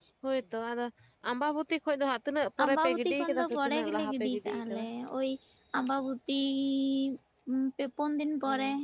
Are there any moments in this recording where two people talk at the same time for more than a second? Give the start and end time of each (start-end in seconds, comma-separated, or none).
2.6-4.8